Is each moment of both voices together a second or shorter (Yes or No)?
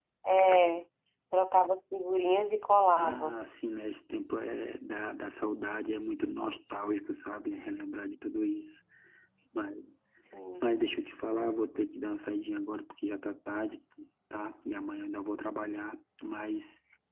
Yes